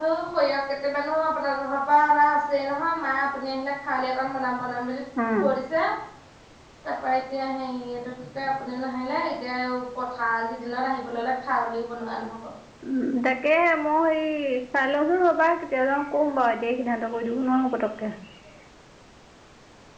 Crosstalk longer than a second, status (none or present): none